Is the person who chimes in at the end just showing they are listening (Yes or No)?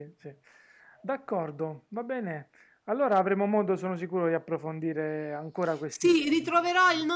No